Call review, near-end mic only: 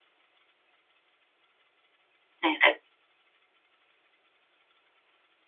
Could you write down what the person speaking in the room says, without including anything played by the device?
네네.

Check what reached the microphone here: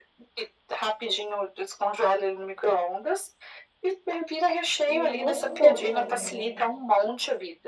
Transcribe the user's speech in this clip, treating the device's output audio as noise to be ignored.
E é gostoso ainda, né?

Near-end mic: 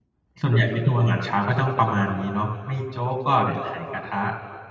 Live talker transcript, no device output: ส่วนใหญ่เมนูอาหารเช้าก็จ้องประมาณนี้เนาะ ไม่โจ๊กก็เนี่ย ไข่กระทะ

